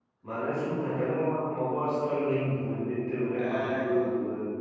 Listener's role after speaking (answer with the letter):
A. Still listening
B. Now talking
A